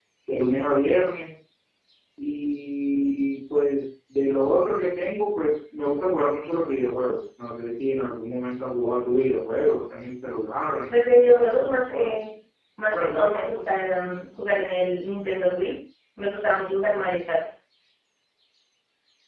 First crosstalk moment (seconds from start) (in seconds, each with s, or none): 10.9 s